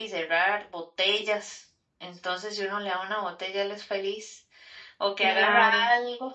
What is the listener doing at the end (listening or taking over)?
listening